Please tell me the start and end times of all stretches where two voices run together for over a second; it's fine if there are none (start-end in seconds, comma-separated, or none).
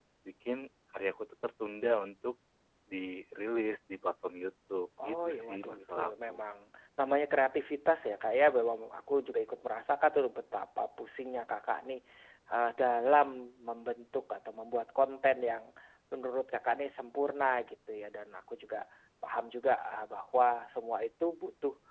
5.0-6.4